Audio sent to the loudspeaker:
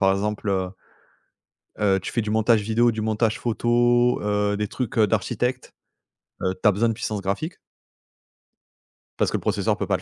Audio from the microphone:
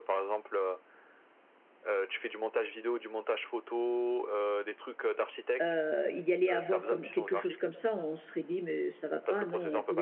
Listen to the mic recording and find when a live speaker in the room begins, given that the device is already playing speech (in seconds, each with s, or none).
5.6 s